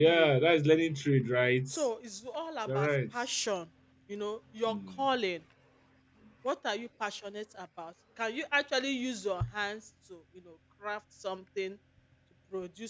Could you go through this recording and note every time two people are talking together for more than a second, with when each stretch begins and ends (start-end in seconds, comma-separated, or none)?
none